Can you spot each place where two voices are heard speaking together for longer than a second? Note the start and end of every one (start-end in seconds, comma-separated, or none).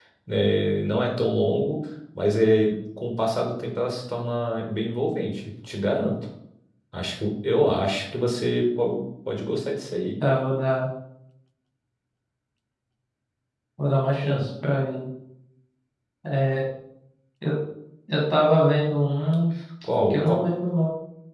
none